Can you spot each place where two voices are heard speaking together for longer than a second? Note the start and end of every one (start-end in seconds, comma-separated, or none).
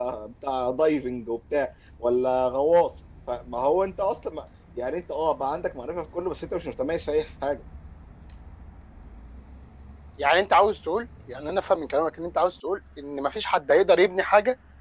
none